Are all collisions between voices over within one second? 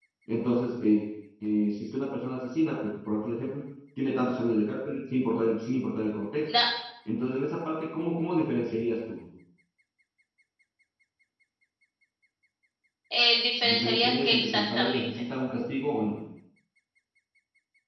No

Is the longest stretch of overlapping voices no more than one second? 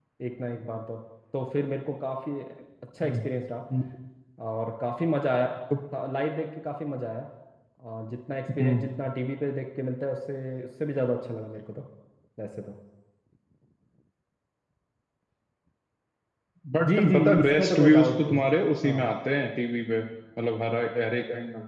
No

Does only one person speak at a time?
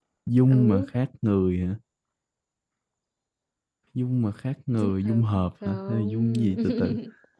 No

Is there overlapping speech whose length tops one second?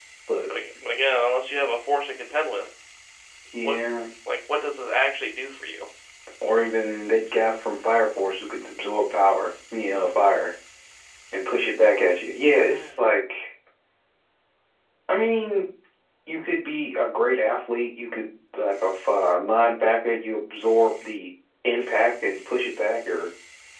No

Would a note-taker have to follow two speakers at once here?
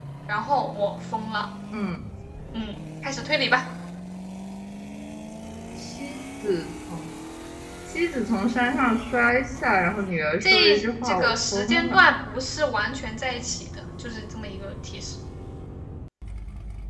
Yes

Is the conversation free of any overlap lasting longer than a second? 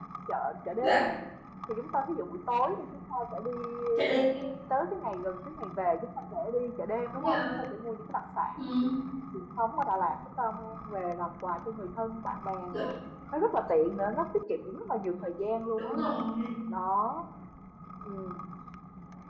Yes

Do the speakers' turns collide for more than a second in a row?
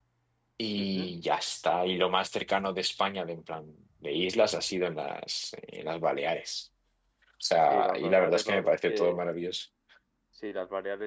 Yes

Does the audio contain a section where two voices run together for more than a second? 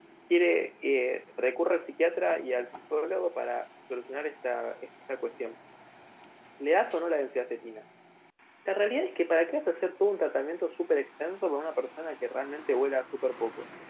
No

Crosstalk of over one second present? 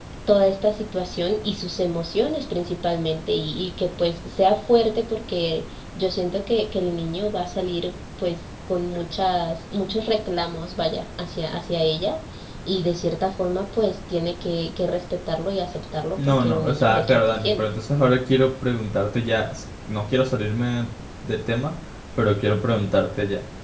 Yes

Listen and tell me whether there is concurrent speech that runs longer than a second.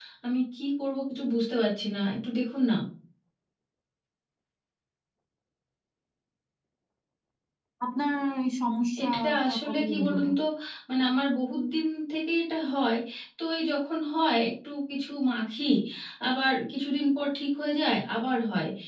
Yes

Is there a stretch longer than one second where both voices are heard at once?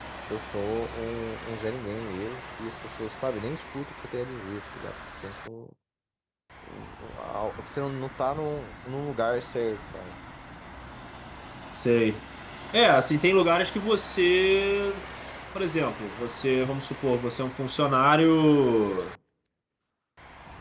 No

